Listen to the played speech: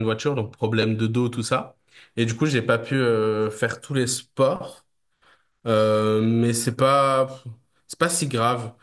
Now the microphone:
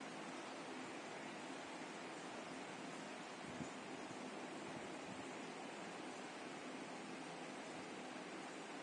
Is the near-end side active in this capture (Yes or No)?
No